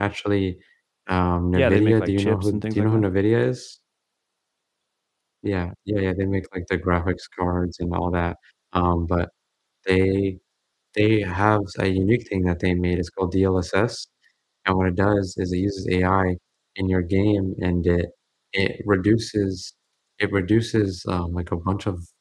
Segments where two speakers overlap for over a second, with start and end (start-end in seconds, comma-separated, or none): 1.6-3.1